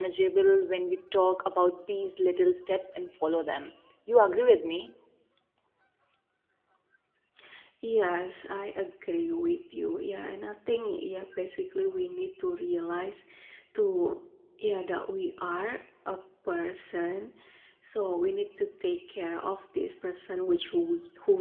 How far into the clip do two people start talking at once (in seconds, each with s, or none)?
none